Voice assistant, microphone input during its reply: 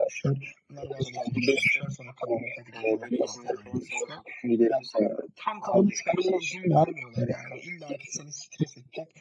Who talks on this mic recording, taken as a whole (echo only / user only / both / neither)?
echo only